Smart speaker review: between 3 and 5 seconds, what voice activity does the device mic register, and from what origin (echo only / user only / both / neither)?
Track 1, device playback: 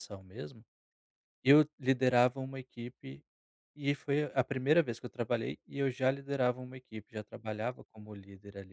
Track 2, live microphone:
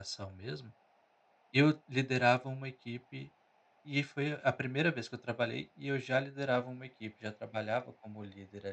echo only